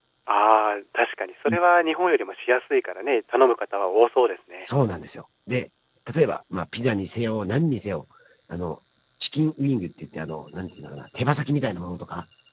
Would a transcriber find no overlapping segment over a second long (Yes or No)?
Yes